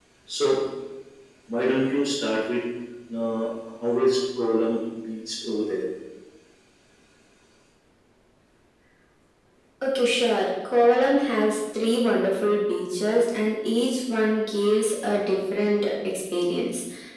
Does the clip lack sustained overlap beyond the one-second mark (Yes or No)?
Yes